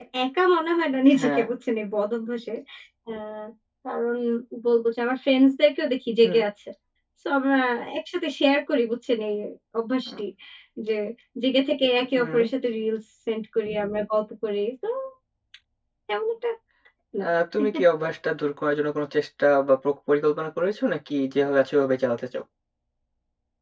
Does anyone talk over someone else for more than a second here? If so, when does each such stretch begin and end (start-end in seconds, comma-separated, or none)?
none